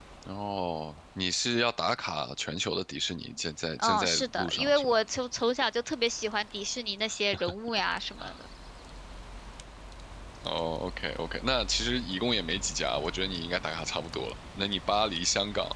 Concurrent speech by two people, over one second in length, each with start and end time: 3.8-5.0

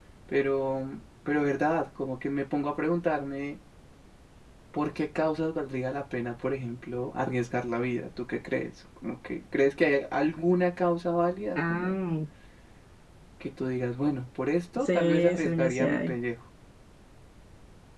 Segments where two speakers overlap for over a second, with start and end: 14.8-16.1

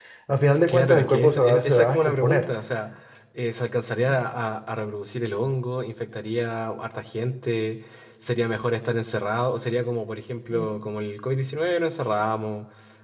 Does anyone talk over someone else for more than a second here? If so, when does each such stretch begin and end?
0.5-2.5

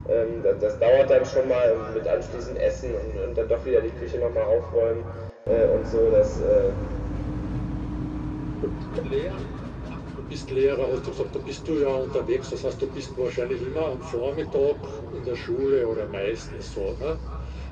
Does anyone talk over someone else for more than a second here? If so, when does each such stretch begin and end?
none

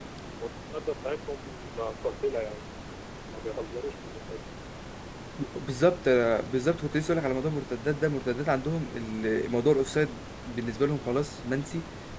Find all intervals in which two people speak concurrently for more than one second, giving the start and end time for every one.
none

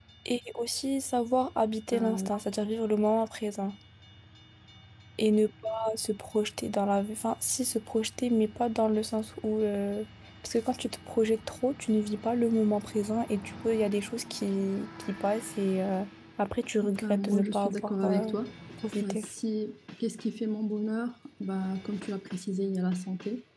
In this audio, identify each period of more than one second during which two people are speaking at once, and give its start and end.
17.0-18.3

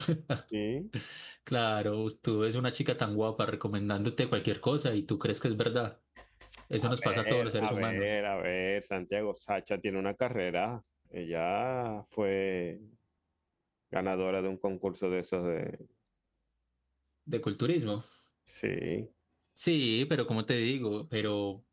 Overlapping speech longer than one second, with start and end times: 6.8-8.1

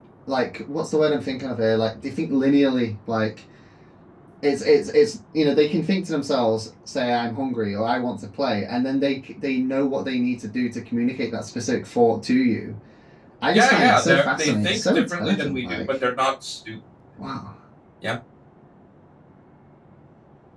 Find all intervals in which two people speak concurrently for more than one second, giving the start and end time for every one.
13.5-16.0

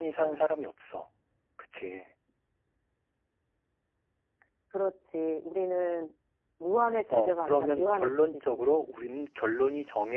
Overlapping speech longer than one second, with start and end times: 7.1-8.6

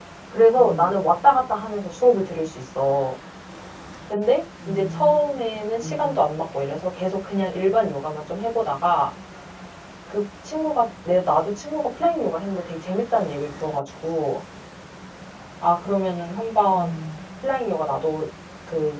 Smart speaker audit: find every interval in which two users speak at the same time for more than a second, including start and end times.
4.6-6.2

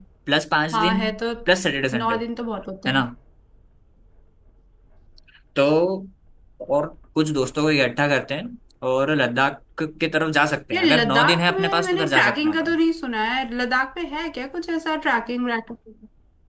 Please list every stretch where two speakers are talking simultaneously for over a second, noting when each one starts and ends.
10.7-12.8

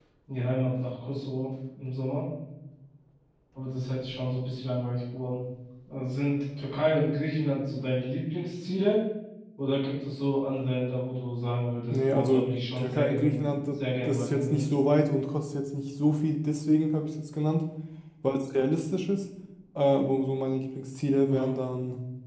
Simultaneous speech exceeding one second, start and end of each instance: 11.9-14.6

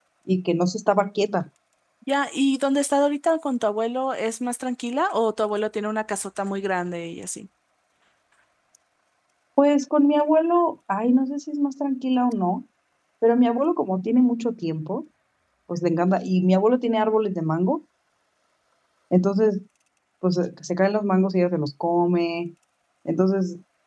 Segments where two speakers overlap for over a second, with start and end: none

